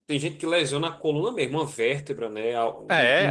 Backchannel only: No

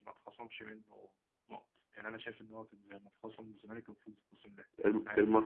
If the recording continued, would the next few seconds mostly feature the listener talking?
Yes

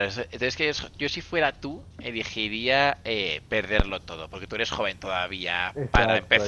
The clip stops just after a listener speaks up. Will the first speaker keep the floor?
Yes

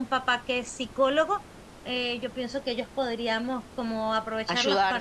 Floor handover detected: No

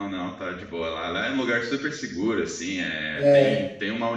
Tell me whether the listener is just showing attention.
Yes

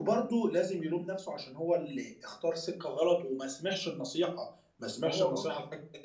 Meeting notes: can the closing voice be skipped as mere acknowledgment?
Yes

